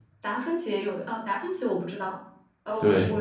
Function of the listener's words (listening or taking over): listening